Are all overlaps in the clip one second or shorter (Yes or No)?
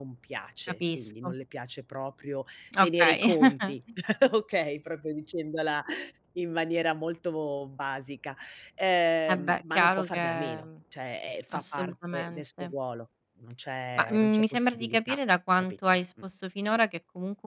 No